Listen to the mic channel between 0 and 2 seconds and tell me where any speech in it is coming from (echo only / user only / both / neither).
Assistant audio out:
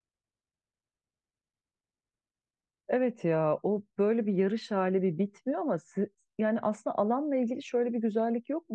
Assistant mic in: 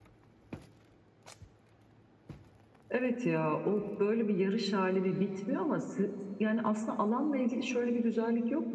neither